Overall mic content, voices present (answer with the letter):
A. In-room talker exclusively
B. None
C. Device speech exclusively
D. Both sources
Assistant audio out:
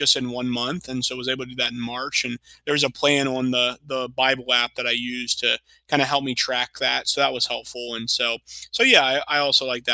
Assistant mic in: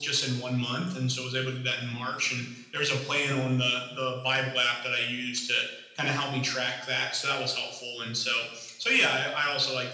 C